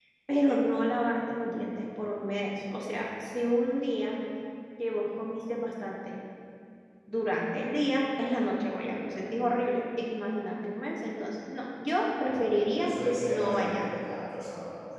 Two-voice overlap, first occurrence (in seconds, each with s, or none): 12.3 s